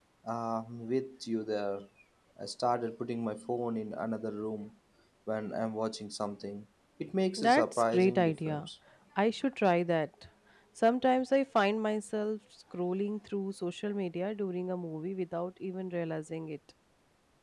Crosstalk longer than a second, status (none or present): present